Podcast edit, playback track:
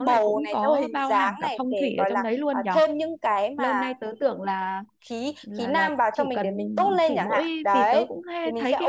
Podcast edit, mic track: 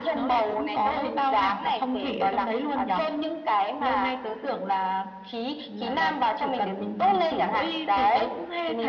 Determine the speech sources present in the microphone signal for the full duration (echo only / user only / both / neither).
echo only